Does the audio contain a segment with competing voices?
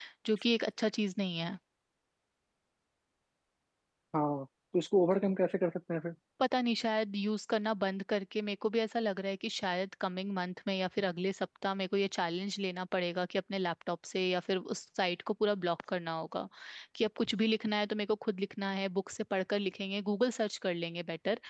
No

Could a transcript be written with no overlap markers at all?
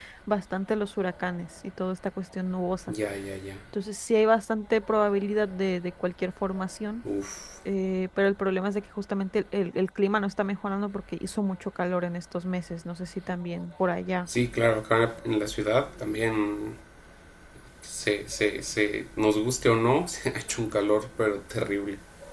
Yes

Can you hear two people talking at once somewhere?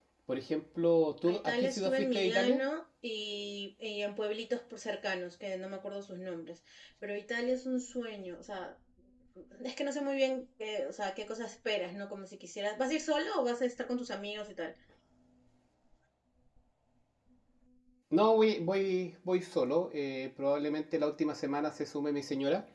Yes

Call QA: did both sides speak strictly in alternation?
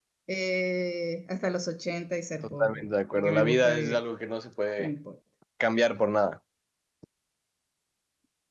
No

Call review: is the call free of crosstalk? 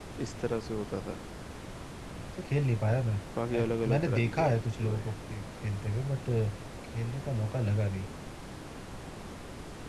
No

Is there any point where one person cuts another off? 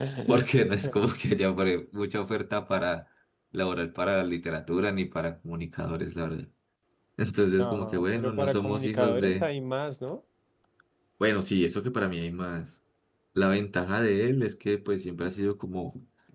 Yes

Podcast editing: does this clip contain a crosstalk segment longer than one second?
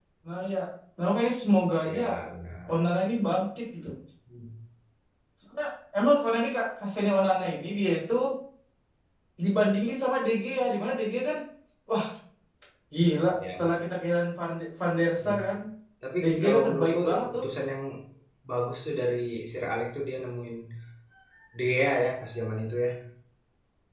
Yes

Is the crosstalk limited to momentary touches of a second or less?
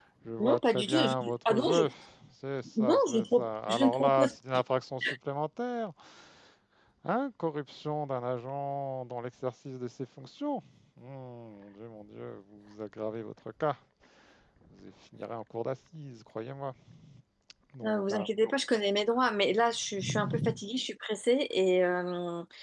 No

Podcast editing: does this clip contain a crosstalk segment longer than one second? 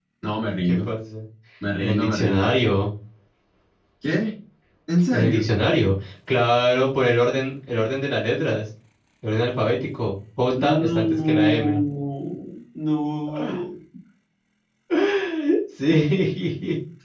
Yes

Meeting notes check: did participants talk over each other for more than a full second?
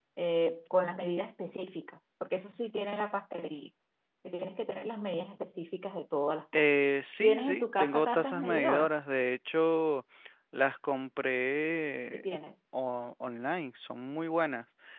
Yes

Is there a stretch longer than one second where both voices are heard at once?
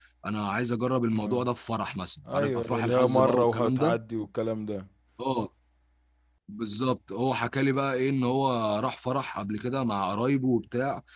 Yes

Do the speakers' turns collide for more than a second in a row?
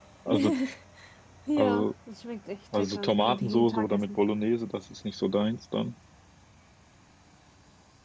Yes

